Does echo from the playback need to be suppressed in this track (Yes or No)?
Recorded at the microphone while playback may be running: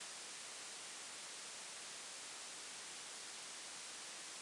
No